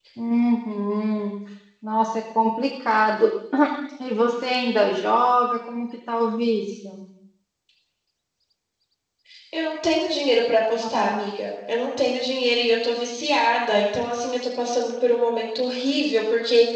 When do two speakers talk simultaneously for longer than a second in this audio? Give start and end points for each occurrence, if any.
none

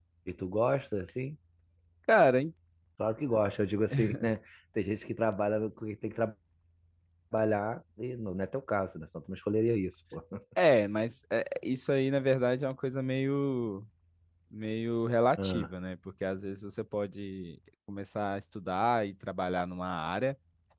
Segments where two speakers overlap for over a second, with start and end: none

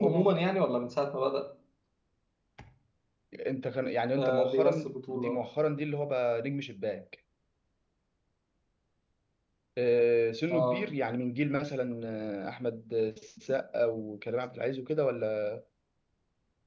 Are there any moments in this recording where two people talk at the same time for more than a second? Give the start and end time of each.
4.2-5.4

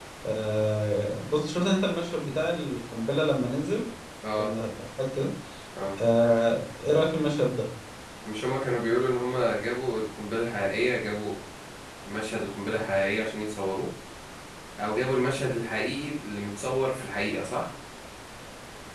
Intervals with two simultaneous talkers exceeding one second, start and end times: none

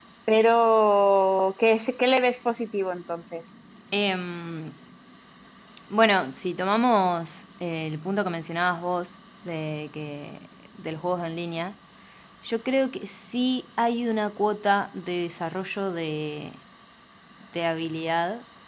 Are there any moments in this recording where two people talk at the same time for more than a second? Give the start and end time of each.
none

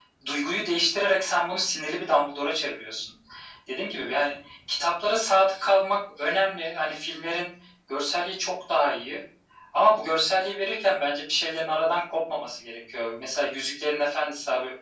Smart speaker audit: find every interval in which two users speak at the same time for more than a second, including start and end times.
none

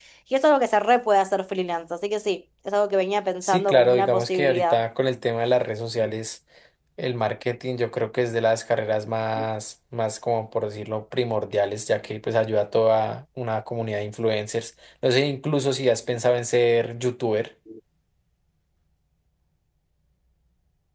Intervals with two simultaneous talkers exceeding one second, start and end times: 3.4-4.8

